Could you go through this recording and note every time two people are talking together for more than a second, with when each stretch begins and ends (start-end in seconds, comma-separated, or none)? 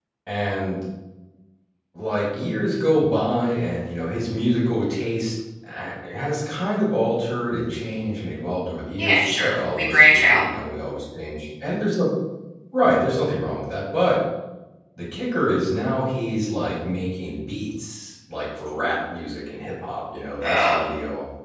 9.0-10.4